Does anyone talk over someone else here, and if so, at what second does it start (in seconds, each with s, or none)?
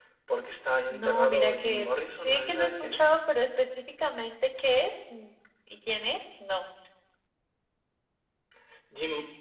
0.9 s